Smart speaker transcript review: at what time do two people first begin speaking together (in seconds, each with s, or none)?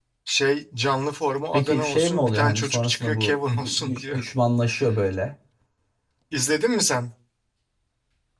1.5 s